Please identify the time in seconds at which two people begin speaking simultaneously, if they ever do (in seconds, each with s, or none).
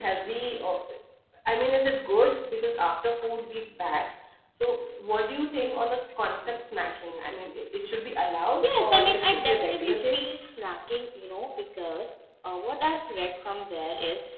8.6 s